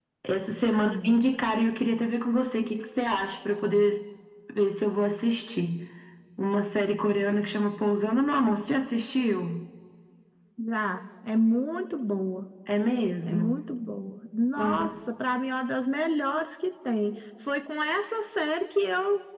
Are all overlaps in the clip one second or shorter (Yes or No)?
Yes